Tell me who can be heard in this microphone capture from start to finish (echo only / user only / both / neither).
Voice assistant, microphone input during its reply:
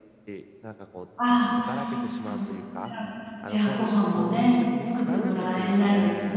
both